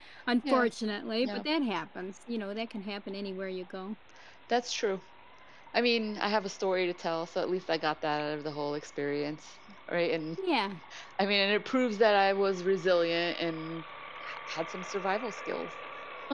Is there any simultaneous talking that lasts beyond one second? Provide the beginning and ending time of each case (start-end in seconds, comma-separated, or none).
none